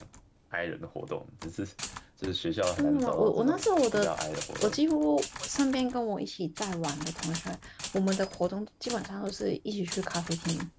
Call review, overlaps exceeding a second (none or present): present